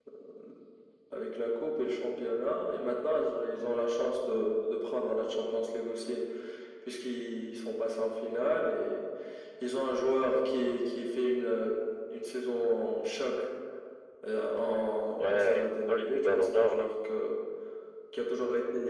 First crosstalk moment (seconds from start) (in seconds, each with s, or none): 15.2 s